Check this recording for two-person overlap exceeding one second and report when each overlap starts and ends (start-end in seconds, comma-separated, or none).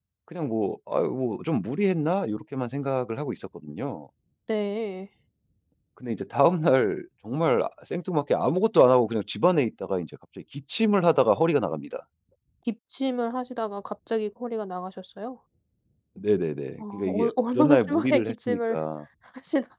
16.8-18.8